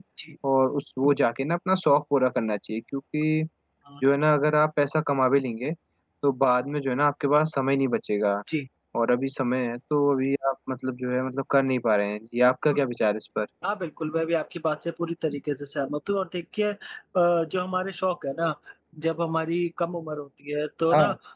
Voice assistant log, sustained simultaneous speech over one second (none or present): none